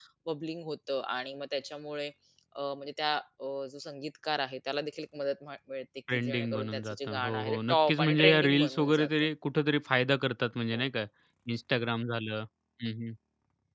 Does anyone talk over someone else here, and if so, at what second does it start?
6.1 s

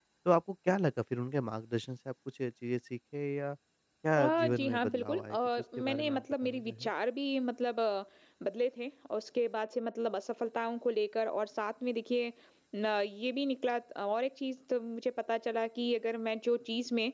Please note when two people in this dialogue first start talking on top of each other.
4.2 s

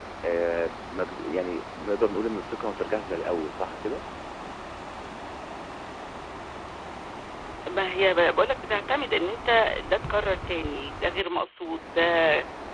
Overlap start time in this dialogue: none

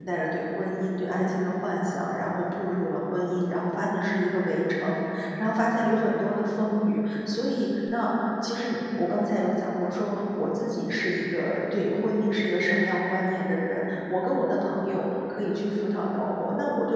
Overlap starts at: none

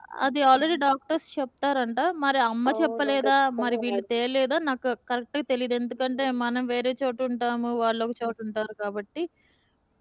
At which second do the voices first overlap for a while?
2.7 s

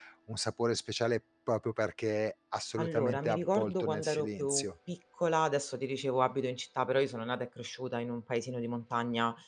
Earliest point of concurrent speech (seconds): 2.8 s

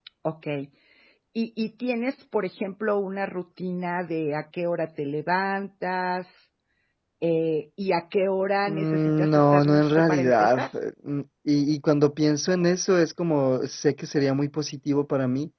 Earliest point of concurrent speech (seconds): 8.7 s

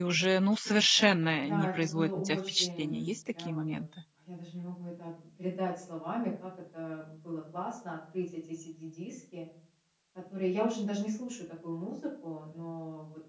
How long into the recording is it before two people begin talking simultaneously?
1.4 s

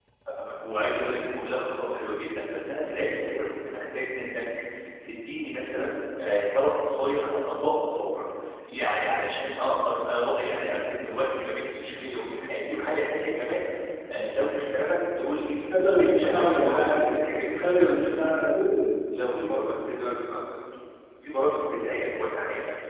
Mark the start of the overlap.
15.7 s

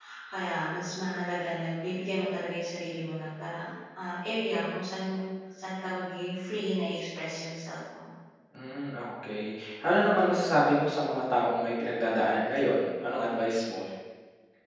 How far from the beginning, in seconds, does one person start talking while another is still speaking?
none

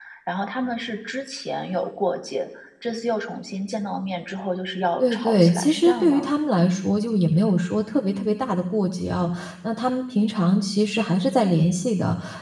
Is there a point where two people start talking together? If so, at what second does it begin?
5.0 s

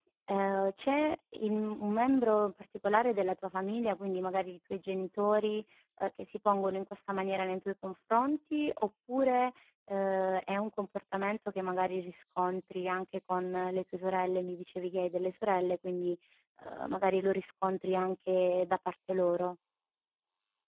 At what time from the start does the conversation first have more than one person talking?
none

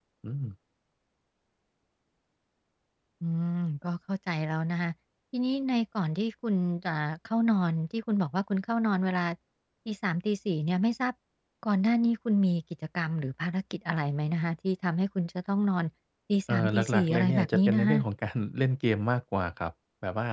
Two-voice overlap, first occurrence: 16.5 s

